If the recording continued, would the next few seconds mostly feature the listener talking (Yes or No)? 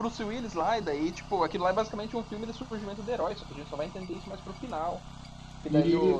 No